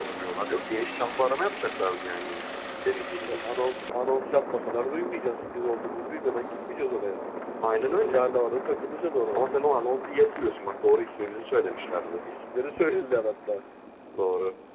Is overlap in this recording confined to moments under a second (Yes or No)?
Yes